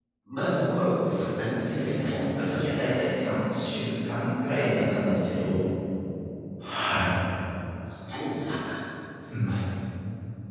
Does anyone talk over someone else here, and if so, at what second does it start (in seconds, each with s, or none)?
1.0 s